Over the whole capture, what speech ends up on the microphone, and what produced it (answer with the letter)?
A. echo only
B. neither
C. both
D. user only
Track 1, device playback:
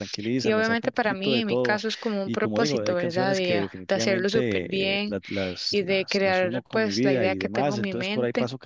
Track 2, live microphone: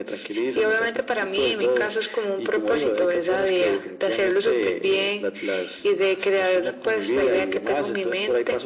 A